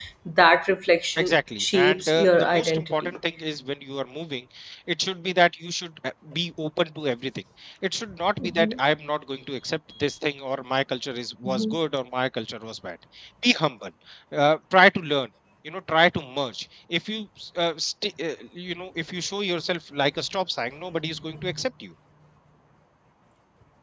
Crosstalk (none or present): present